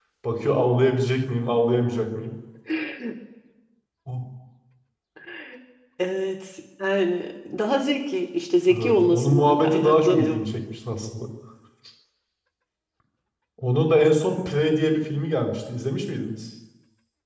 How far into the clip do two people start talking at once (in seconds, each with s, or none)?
8.7 s